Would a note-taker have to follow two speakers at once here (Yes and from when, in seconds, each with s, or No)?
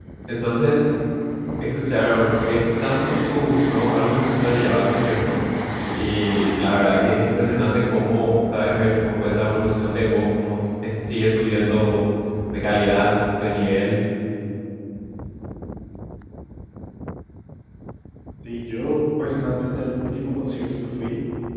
No